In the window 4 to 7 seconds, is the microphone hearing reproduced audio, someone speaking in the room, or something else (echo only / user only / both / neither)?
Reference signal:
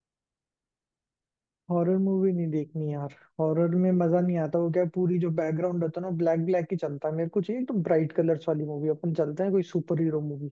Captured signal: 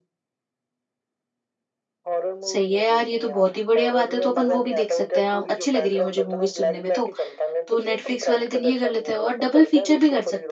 both